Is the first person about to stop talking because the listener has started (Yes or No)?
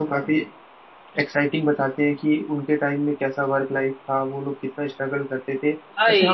No